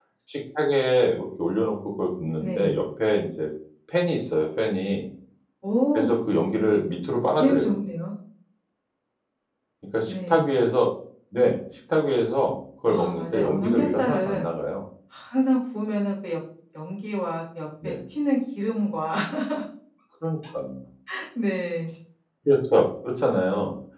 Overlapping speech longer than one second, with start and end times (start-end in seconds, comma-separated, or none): 12.8-14.4